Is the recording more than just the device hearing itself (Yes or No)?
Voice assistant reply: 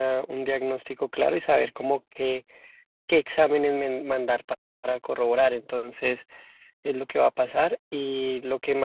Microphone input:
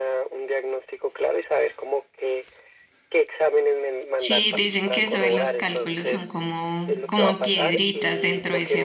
Yes